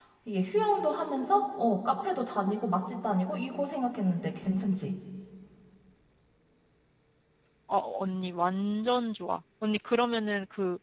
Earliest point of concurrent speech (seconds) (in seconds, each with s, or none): none